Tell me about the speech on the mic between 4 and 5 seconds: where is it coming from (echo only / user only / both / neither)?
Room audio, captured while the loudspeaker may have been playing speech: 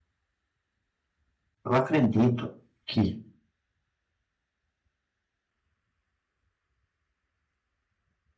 neither